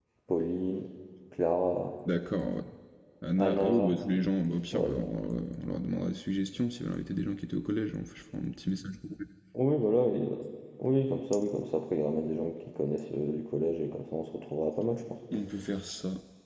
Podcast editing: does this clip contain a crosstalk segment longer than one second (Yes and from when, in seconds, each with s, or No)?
No